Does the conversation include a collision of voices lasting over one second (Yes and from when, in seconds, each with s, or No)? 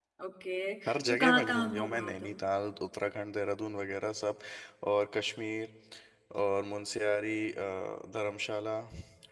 Yes, from 1.1 s